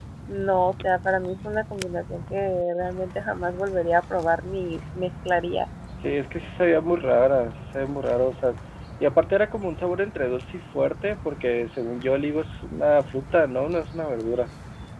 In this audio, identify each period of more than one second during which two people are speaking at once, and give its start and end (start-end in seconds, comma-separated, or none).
none